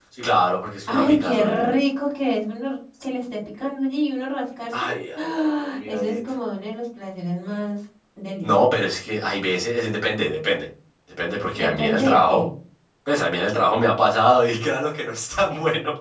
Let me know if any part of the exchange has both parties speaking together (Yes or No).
Yes